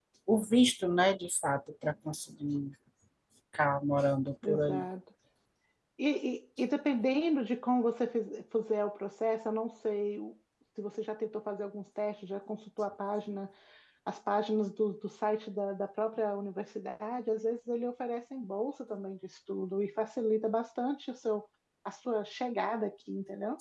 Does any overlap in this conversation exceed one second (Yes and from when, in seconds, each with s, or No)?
No